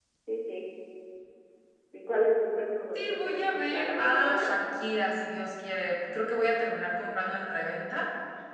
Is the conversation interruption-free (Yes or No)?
No